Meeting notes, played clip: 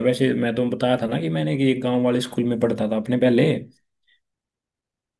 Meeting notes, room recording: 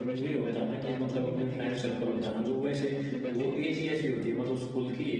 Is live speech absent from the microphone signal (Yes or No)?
No